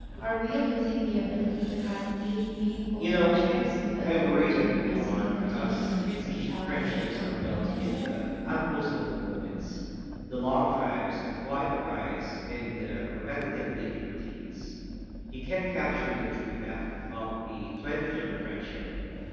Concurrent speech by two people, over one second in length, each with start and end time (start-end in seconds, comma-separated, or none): 4.0-8.1